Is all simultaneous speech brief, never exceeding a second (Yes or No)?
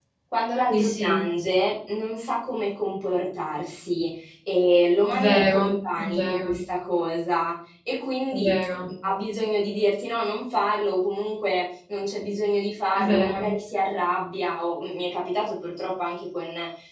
No